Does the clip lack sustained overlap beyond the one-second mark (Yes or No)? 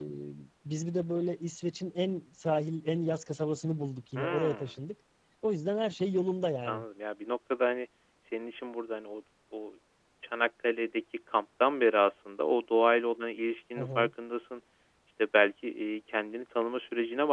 Yes